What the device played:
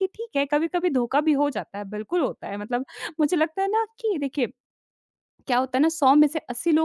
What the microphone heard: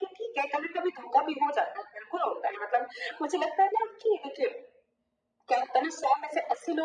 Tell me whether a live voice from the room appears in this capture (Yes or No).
No